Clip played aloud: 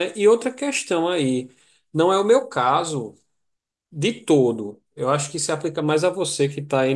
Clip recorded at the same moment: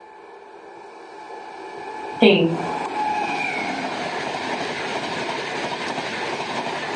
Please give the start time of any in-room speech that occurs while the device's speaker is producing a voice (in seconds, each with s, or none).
2.2 s